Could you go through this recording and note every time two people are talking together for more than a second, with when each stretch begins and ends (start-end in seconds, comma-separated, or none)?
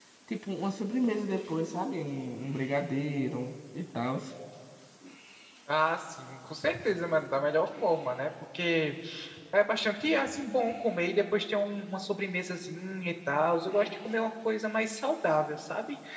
none